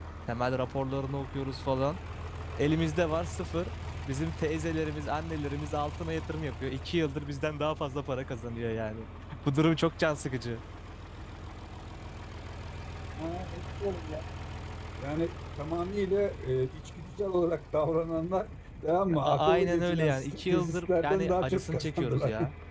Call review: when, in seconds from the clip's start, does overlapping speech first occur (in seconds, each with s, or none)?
19.1 s